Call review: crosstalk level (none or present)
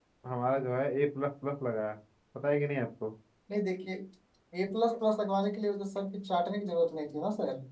none